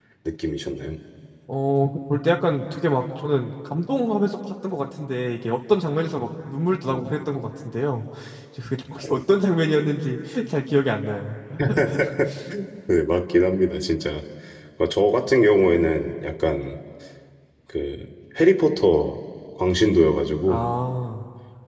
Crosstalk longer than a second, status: none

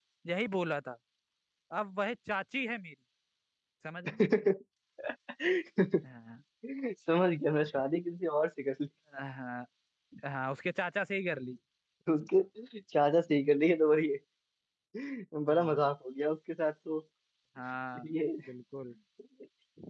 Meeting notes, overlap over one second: none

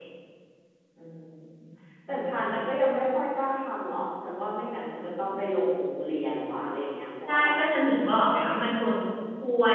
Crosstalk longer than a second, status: none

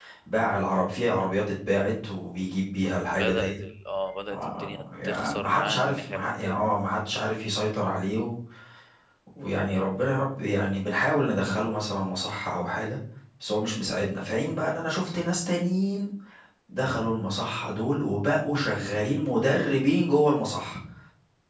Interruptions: present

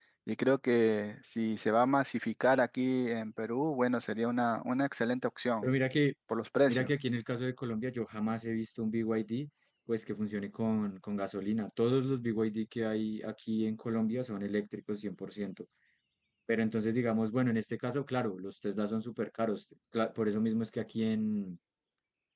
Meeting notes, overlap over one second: none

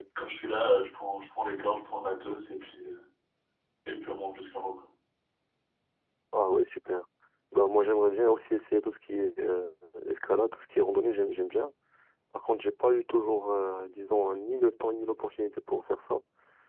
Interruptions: none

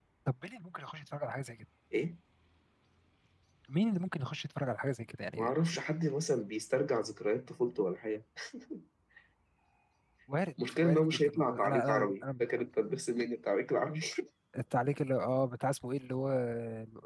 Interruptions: present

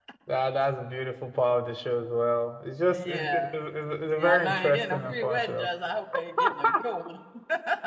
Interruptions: present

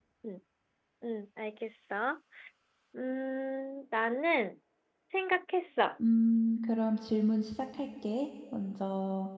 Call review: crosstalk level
none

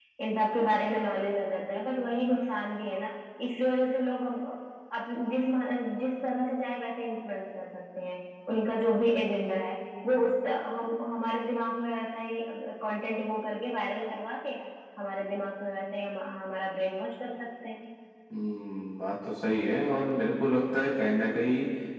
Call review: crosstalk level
none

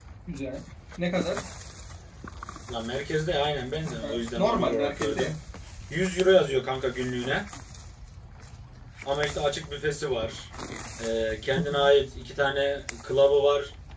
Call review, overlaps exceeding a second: present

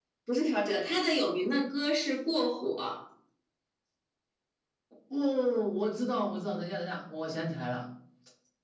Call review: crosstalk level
none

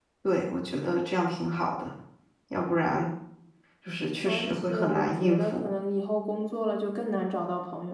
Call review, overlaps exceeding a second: present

